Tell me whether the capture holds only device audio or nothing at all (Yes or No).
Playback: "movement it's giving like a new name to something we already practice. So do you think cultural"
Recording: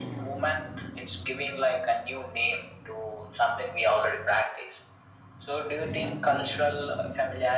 Yes